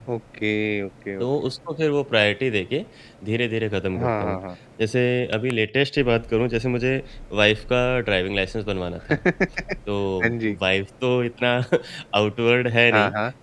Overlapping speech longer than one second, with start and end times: none

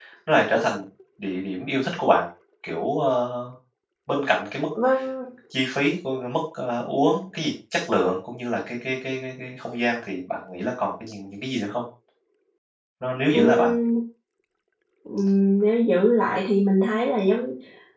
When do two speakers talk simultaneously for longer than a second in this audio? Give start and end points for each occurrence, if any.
none

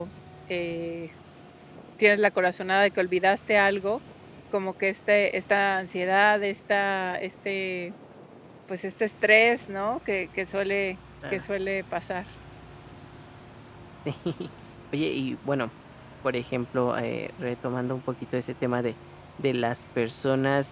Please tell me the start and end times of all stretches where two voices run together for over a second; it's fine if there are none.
none

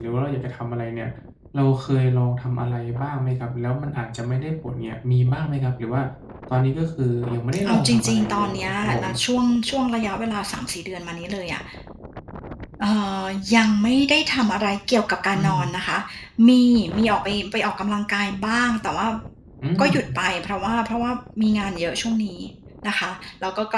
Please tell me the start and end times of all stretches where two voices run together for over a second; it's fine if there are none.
7.7-9.0

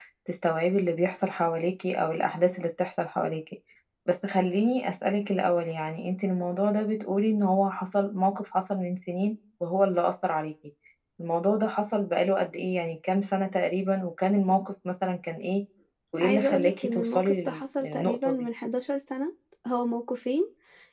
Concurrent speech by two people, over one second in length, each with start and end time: 16.2-18.3

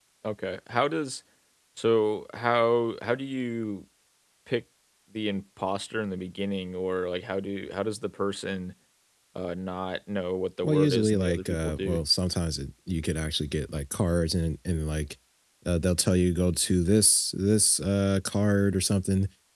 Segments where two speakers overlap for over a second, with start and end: 10.6-12.0

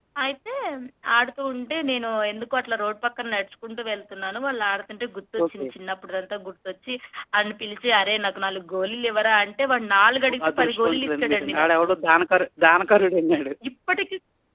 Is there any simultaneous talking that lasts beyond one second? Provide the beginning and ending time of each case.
10.3-11.9

